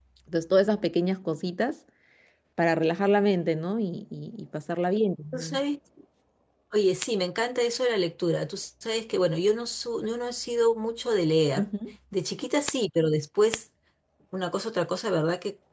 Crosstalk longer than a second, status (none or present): none